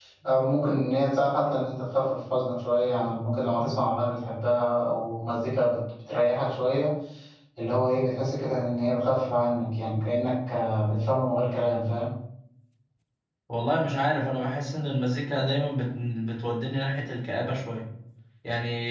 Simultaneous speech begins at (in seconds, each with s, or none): none